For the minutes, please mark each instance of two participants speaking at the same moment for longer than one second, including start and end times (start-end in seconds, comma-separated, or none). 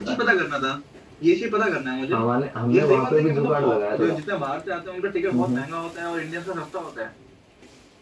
2.7-4.1